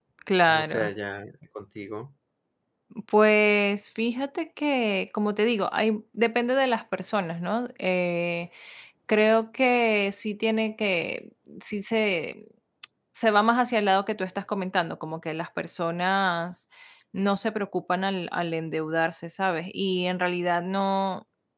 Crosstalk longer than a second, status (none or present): none